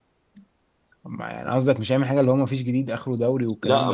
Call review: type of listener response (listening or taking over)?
taking over